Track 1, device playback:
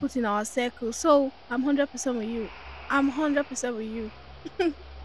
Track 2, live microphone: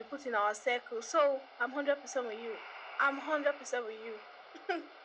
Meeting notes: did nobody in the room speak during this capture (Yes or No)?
Yes